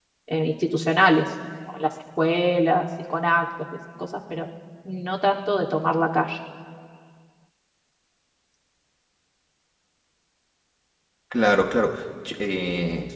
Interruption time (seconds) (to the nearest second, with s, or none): none